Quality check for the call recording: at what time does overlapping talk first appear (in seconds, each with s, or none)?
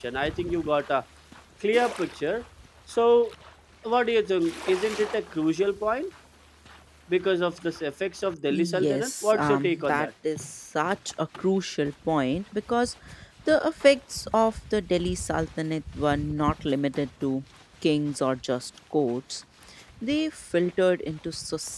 8.5 s